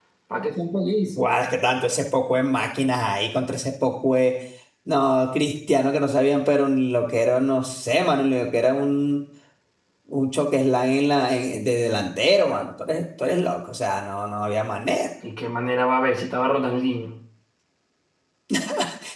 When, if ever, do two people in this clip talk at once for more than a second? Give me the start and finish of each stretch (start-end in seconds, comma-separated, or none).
none